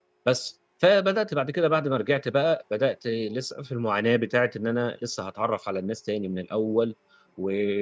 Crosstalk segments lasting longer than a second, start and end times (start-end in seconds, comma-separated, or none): none